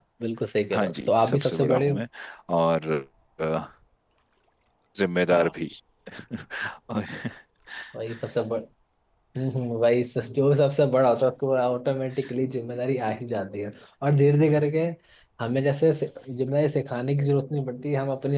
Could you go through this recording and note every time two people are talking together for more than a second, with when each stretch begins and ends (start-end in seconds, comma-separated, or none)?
0.7-2.0